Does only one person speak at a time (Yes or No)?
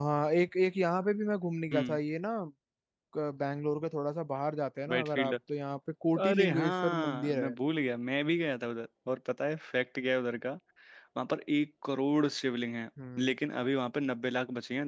No